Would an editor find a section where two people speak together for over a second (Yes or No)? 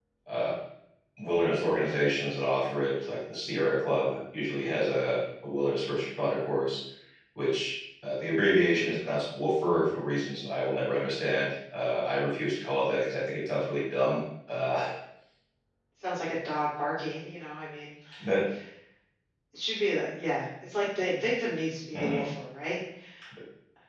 No